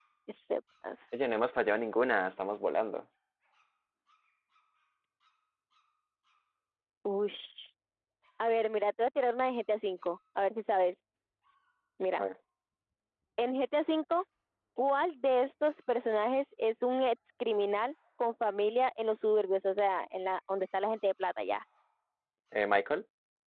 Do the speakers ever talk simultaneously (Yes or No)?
No